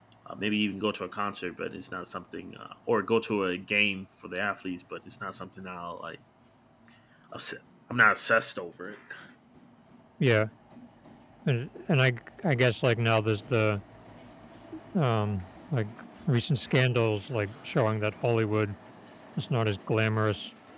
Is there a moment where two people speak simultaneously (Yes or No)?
No